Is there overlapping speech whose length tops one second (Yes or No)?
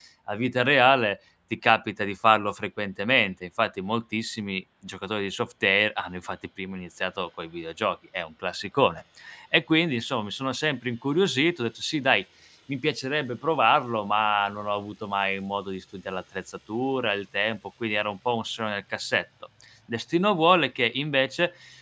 No